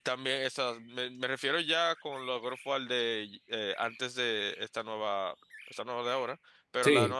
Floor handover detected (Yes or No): No